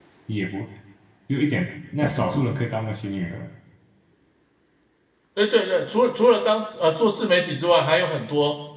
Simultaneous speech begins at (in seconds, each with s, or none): none